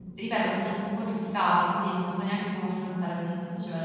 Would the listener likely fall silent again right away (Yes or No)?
No